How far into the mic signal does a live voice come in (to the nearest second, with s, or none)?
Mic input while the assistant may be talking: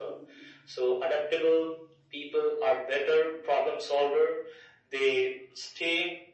none